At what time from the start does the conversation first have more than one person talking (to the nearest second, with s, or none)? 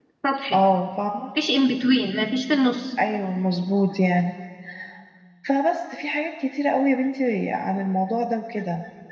none